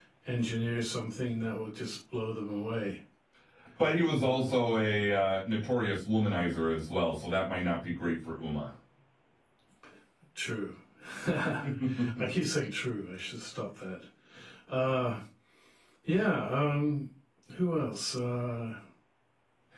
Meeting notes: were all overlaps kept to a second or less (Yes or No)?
Yes